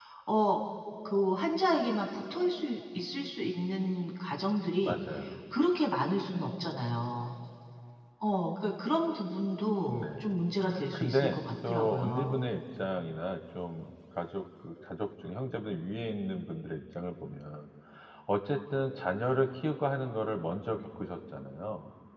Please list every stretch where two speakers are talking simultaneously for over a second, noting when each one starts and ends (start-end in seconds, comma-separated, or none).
10.9-12.4